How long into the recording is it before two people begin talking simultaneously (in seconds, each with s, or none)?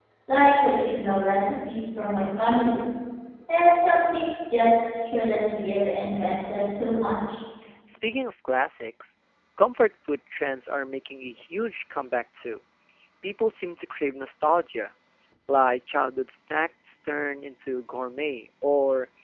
none